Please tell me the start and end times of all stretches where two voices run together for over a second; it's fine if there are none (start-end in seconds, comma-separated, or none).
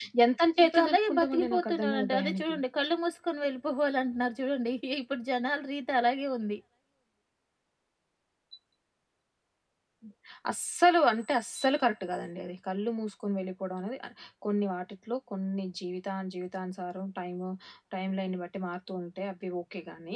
0.6-2.5